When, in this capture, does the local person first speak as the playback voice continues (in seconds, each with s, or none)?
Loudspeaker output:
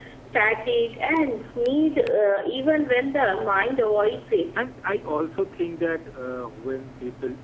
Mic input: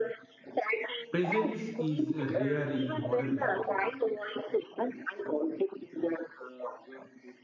1.1 s